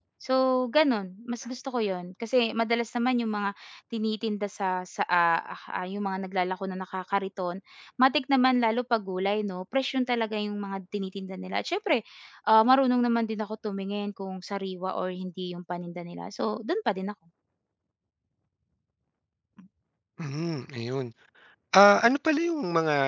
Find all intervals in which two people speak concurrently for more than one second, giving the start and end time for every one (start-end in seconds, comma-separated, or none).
none